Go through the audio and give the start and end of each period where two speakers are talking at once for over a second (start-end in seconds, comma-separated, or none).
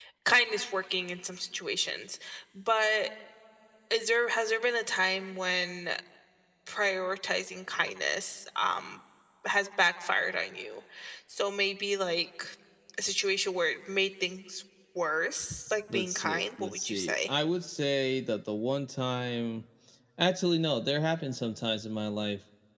15.9-17.1